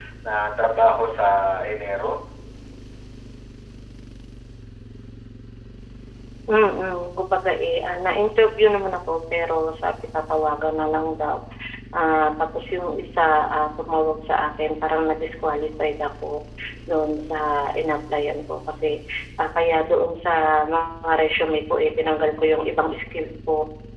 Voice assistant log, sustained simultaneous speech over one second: none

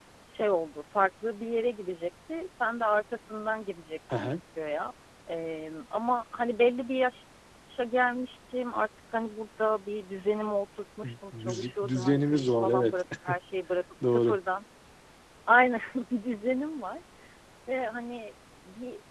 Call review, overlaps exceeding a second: present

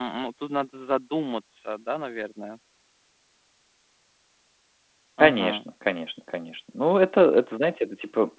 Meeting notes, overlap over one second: none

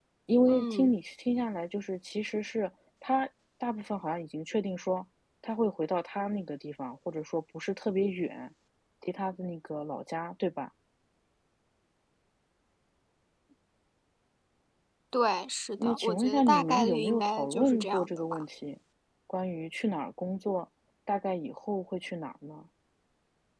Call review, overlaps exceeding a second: present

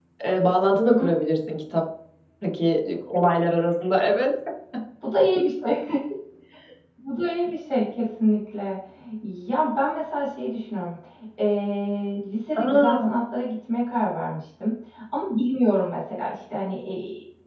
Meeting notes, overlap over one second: none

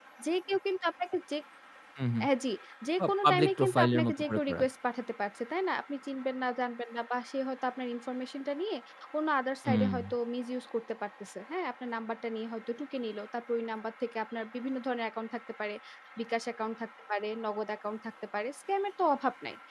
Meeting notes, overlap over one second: present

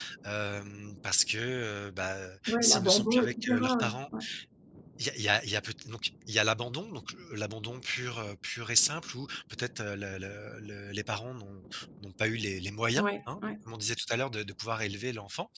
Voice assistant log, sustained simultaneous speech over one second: present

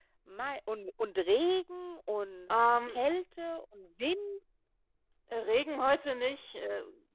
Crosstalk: none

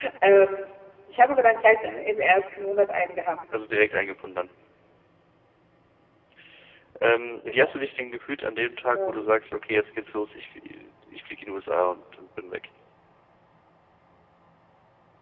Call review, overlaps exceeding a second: none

